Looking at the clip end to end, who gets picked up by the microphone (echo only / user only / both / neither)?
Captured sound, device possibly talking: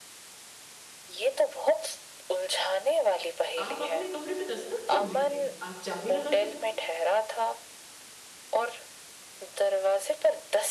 both